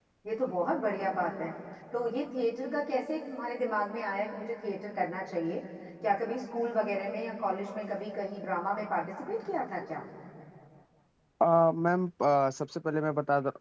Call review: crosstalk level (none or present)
none